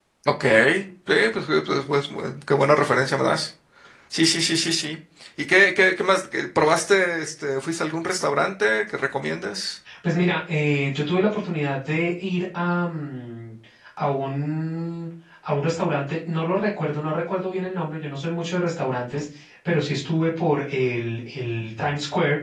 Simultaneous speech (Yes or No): No